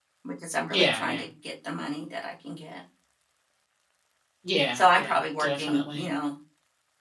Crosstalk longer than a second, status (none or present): present